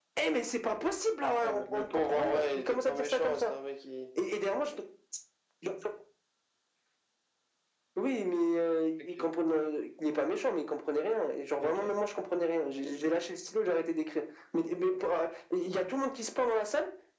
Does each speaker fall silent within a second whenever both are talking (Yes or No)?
No